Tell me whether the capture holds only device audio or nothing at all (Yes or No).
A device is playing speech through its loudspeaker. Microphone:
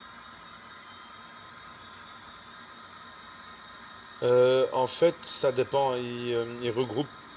No